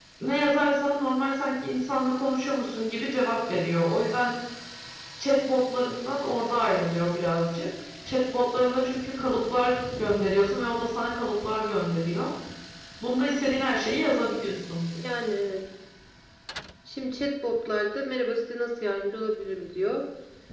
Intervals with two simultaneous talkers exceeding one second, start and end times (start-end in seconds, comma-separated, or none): none